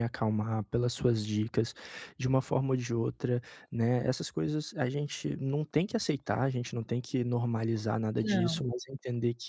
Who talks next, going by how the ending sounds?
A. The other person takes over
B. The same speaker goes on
B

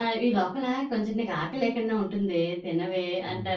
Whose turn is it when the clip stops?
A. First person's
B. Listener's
B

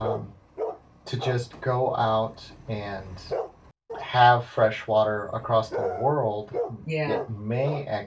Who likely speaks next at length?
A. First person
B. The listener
A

